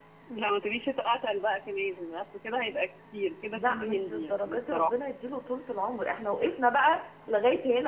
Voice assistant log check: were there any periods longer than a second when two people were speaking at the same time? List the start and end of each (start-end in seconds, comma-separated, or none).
3.5-4.9